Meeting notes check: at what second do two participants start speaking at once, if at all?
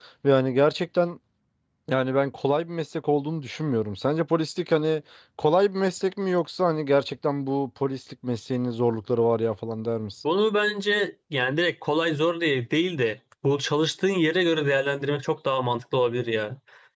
none

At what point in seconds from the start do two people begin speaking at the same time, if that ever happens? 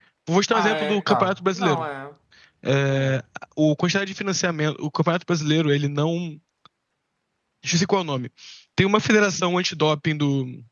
1 s

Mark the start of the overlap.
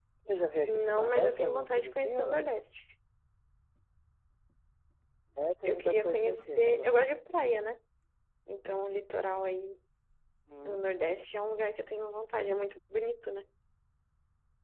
1 s

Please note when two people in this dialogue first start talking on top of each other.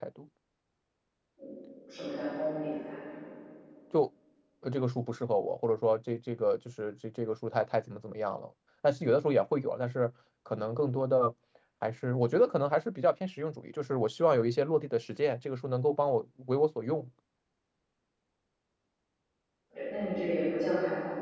none

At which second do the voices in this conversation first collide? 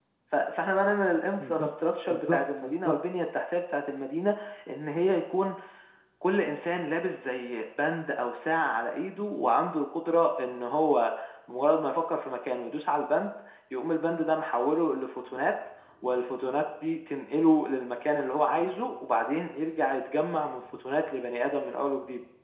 1 s

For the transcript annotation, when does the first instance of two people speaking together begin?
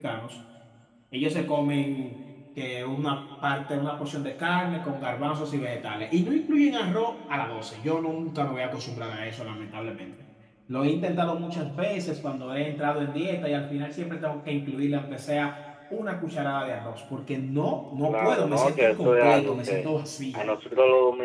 18 s

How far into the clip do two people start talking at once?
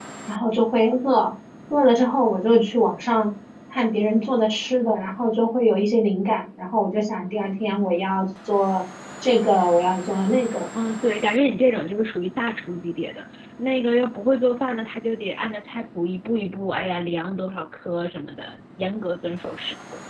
none

